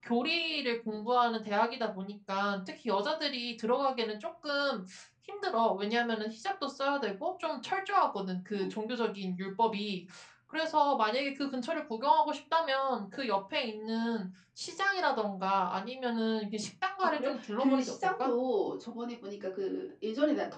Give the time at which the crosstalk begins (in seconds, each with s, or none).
17.0 s